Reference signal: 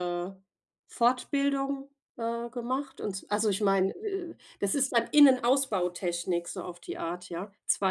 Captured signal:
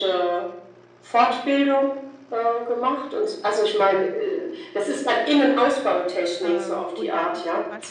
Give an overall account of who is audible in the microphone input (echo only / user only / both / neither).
both